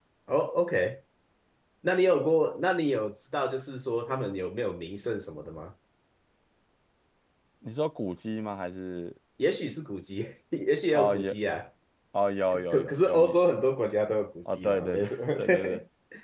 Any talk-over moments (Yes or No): Yes